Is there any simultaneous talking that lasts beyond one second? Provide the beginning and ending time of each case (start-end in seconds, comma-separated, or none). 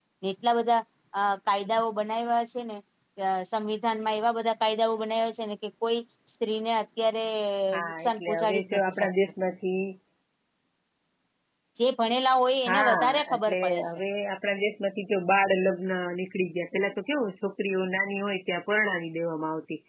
7.9-9.1, 12.7-14.0